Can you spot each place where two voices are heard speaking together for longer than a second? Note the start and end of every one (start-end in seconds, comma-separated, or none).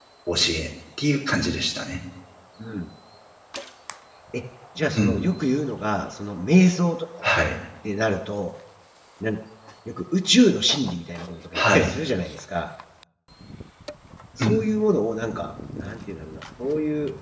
none